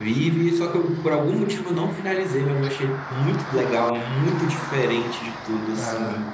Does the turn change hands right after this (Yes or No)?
No